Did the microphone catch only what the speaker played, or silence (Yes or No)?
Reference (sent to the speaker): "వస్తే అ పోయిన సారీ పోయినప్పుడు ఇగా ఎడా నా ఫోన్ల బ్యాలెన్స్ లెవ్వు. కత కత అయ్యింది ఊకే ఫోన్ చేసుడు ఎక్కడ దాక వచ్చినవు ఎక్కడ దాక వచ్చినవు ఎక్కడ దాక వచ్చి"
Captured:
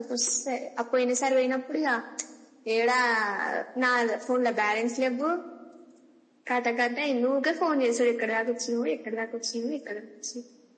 Yes